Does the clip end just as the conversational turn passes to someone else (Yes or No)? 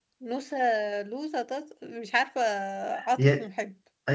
Yes